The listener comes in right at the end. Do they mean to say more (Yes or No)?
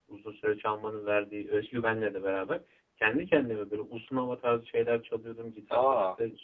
No